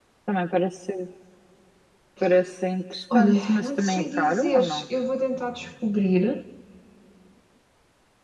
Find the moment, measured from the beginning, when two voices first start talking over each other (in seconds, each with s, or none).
3.1 s